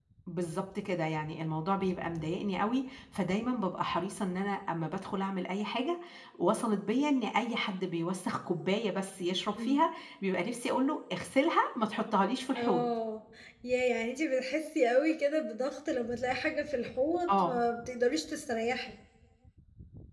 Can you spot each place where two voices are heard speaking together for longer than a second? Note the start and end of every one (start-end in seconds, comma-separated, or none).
none